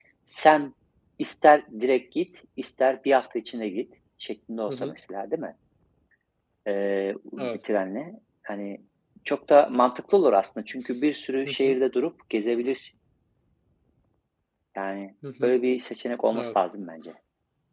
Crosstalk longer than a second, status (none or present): none